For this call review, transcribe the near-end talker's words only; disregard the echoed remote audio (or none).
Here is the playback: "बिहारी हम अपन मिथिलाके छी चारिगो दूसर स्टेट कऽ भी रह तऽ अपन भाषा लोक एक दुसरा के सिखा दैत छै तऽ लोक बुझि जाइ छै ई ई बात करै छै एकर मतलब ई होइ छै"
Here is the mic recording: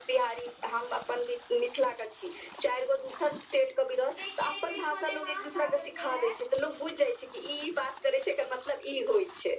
जेकि एहि बेर मलेमास लागल छएला